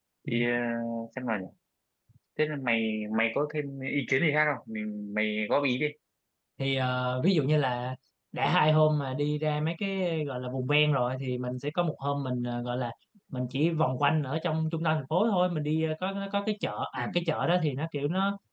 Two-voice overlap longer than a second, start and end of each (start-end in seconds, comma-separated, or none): none